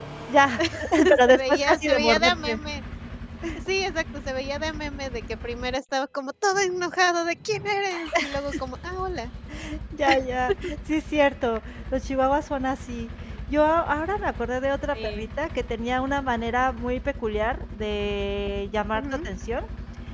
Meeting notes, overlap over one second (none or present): present